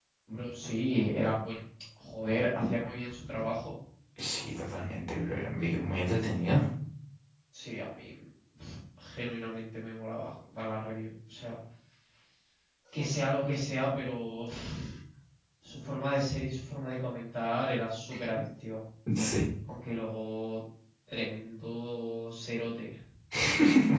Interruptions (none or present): none